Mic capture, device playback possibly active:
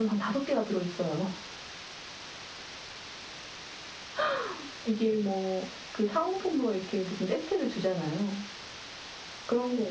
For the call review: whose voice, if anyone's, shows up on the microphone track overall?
echo only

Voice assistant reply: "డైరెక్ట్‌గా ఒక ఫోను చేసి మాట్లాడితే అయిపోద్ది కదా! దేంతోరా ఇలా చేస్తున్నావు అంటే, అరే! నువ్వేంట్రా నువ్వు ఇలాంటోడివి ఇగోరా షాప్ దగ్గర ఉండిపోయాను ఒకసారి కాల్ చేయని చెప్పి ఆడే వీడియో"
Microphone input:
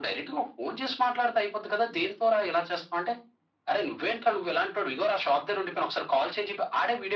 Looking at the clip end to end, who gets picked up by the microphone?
echo only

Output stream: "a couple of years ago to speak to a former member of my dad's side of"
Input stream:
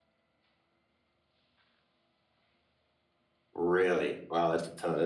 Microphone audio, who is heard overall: user only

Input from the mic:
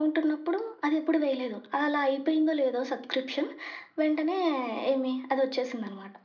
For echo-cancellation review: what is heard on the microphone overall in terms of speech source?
echo only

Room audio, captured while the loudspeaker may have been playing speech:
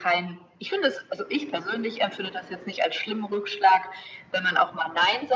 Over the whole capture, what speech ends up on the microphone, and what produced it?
echo only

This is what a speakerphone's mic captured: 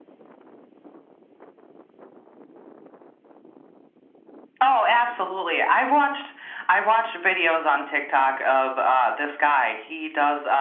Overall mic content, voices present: echo only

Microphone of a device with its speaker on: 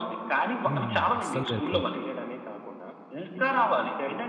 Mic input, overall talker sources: both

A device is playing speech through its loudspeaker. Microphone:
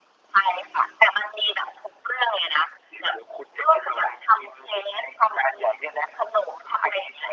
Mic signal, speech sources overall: echo only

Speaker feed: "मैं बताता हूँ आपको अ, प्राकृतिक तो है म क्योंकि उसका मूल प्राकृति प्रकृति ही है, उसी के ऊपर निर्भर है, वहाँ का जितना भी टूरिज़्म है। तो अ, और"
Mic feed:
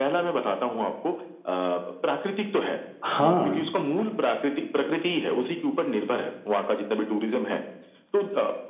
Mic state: both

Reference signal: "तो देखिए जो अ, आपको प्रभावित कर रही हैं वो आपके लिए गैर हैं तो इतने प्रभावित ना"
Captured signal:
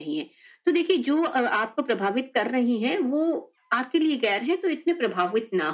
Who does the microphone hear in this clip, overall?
echo only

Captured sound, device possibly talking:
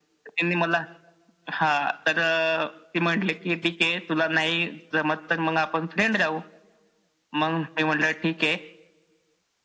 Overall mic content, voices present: echo only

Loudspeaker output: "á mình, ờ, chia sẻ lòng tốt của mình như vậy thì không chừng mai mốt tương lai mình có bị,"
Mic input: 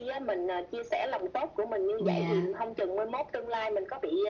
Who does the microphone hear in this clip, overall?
both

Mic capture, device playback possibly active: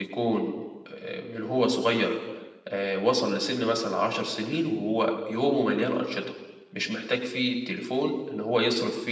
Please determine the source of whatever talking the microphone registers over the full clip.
user only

